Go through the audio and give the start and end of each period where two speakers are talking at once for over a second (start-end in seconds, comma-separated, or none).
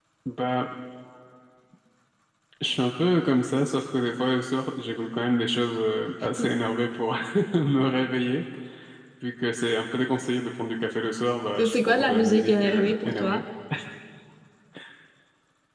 11.6-13.4